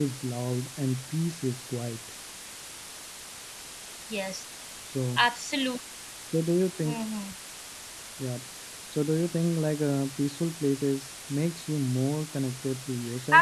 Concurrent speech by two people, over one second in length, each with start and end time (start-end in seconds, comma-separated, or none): none